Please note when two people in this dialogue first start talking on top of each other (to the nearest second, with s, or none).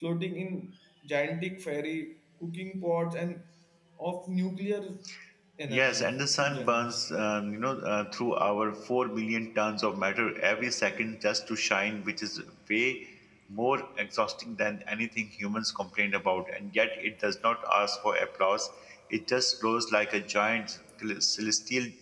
6 s